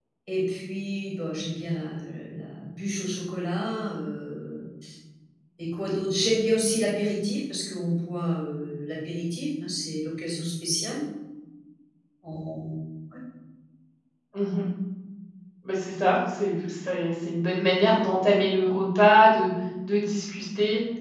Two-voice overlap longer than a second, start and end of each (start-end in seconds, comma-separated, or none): none